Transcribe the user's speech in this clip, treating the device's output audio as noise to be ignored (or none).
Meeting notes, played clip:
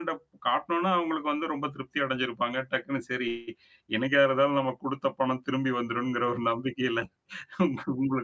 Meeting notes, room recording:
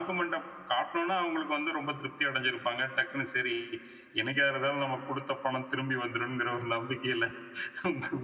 none